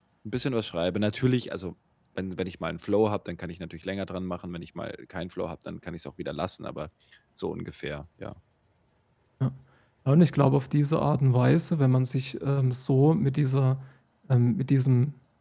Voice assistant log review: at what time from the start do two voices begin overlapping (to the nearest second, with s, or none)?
none